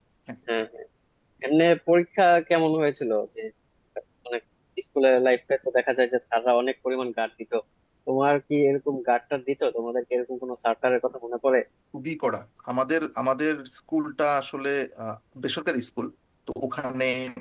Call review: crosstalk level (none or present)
none